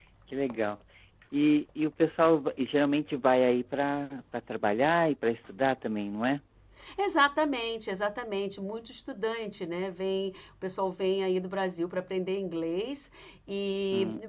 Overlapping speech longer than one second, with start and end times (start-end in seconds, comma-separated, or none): none